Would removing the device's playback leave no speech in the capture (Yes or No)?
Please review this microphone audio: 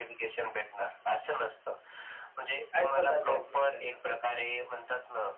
No